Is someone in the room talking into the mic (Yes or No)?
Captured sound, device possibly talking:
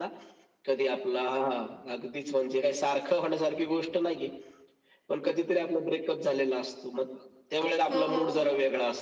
Yes